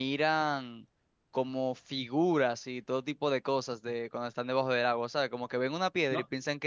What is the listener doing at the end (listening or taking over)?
taking over